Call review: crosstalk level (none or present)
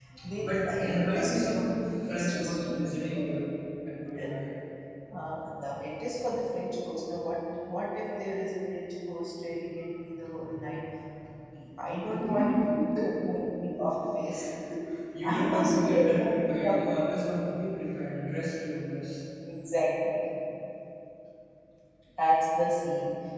present